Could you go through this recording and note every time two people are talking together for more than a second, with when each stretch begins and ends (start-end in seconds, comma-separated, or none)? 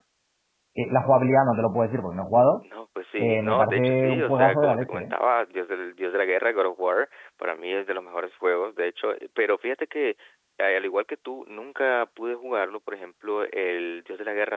3.2-5.1